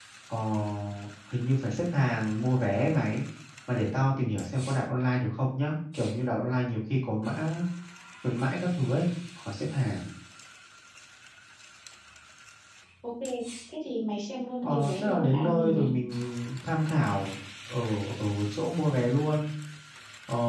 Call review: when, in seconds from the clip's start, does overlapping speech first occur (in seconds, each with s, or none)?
14.6 s